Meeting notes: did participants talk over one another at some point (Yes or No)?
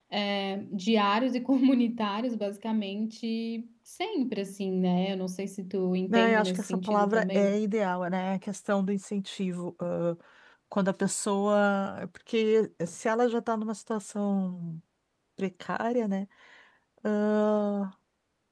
Yes